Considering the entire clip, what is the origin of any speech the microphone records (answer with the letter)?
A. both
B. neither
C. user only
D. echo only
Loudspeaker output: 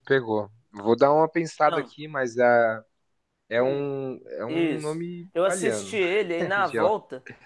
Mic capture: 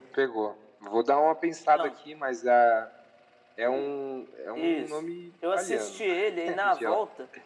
D